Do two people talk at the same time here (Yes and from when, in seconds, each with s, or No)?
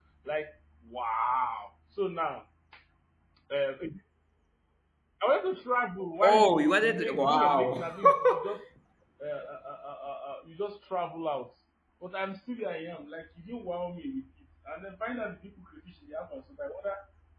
Yes, from 6.2 s